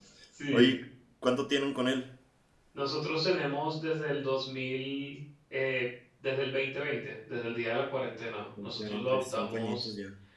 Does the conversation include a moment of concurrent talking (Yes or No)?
Yes